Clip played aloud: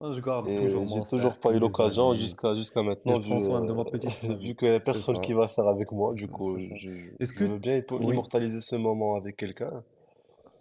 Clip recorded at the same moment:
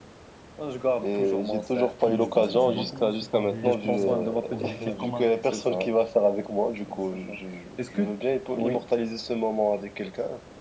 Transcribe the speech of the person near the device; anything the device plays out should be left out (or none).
tu- je pense que tu dois commencer par des petits euh, objectifs comme un